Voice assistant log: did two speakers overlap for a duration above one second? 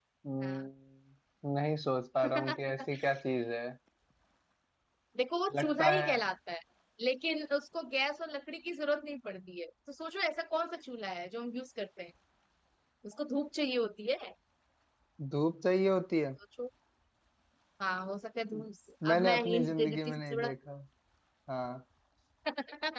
Yes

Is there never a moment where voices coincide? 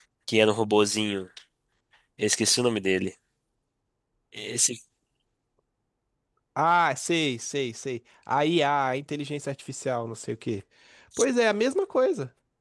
Yes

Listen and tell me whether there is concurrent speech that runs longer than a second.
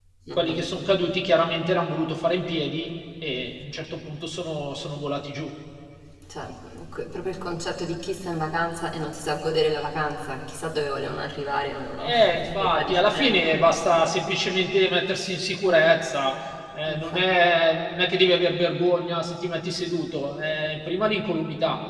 Yes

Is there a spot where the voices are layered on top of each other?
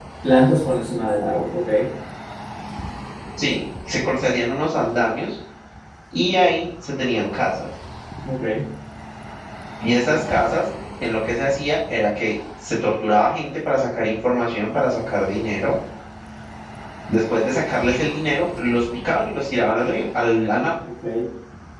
No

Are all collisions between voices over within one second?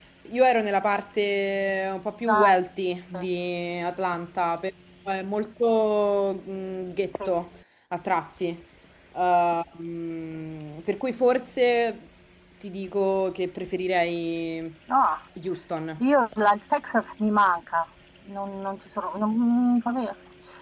Yes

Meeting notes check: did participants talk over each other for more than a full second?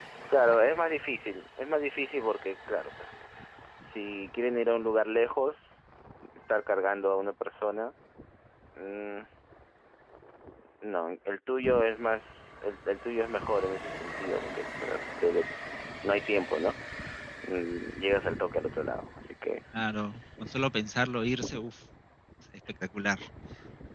No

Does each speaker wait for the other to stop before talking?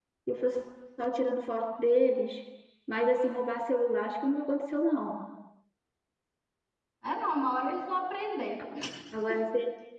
Yes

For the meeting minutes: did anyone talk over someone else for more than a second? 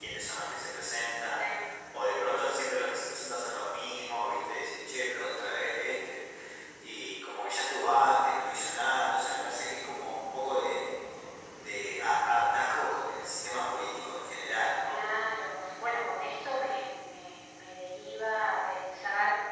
No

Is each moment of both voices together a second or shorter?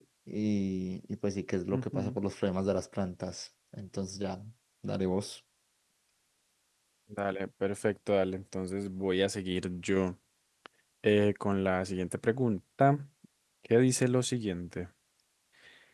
Yes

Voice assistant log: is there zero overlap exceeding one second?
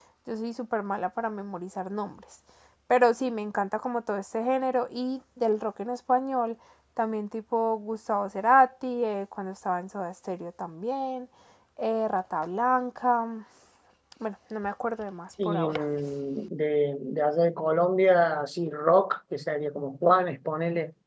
Yes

